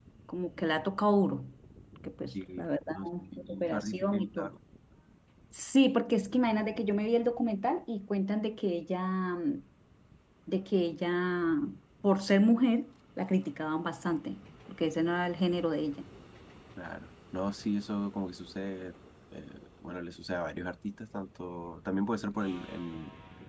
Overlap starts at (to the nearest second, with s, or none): 2 s